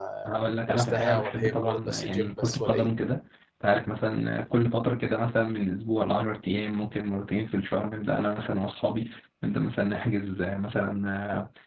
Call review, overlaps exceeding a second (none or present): present